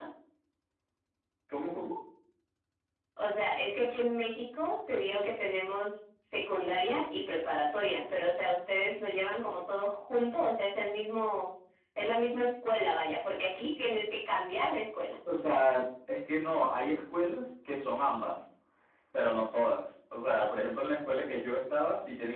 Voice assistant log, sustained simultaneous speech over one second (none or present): none